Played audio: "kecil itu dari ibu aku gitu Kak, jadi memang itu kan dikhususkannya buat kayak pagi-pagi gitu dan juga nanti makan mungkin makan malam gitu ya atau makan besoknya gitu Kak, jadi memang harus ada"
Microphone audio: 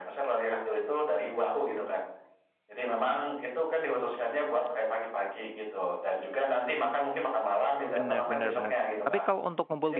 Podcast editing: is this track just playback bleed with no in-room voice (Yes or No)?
No